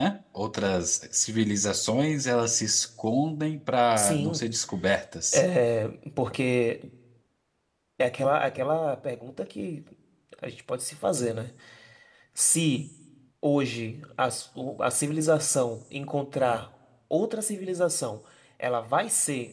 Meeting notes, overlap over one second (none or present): none